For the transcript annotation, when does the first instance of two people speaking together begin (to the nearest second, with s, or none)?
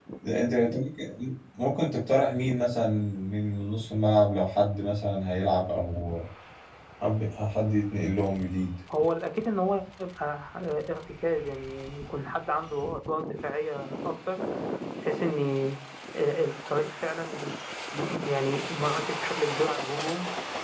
none